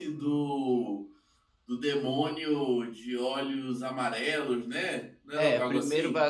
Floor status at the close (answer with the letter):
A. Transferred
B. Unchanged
A